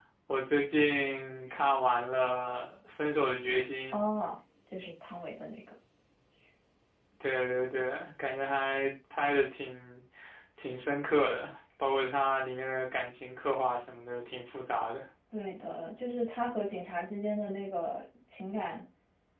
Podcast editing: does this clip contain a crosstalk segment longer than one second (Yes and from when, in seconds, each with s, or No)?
No